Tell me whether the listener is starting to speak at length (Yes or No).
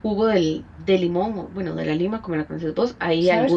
Yes